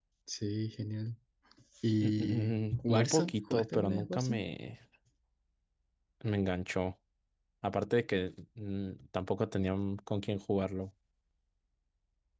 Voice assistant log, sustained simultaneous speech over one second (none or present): present